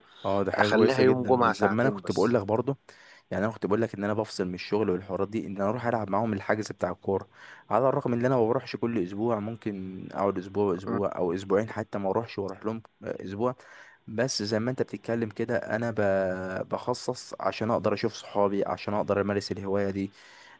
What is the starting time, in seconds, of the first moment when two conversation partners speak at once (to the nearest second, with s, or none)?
1 s